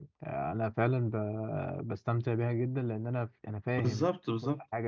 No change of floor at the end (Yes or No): No